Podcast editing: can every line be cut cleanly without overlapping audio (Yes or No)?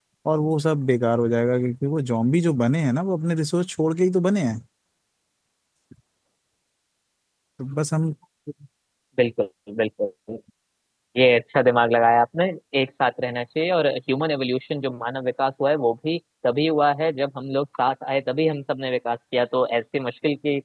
Yes